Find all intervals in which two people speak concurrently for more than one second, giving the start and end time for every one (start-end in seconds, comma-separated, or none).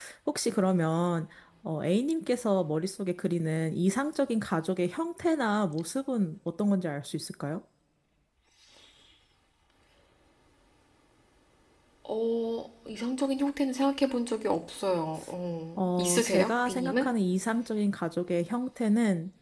15.8-17.1